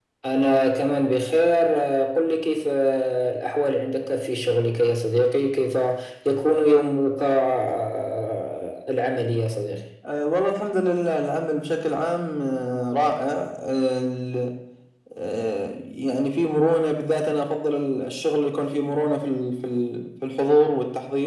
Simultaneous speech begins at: none

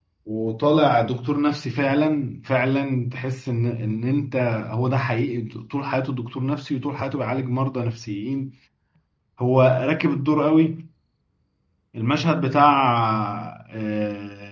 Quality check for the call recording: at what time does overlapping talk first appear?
none

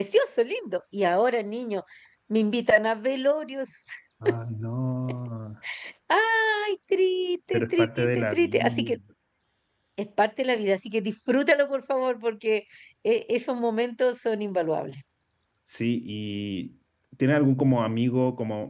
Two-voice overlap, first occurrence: 7.5 s

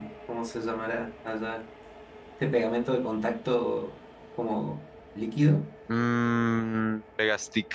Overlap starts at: none

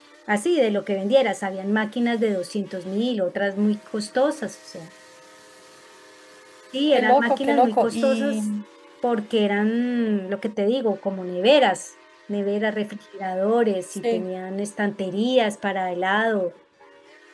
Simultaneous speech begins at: 6.9 s

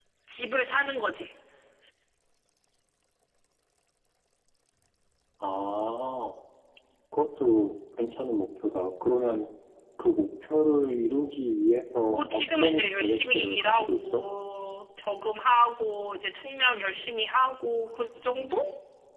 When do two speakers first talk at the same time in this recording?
12.1 s

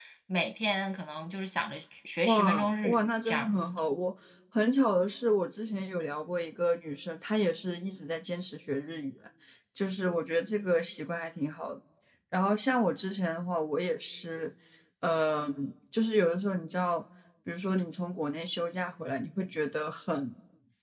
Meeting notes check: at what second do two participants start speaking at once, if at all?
2.2 s

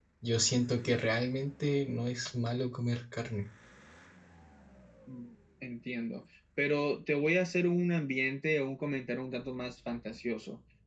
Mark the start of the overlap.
none

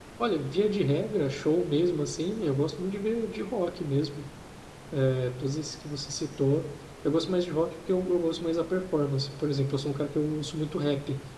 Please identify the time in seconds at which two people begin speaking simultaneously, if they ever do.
none

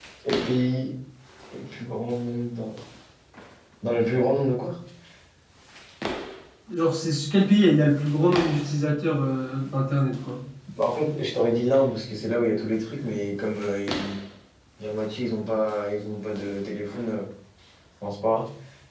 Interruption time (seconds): none

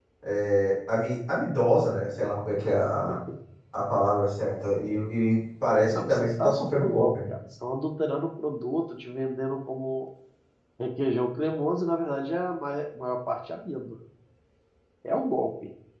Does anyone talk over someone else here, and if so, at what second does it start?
5.9 s

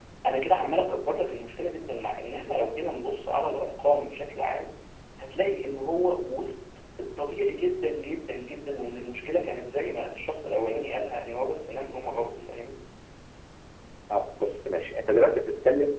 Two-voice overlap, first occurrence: none

